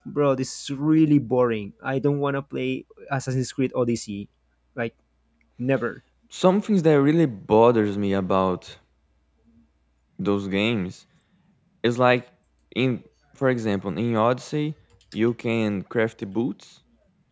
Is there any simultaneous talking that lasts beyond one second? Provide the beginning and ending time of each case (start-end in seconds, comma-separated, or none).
none